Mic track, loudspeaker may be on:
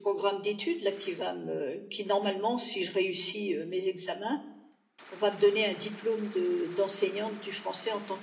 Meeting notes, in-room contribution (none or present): none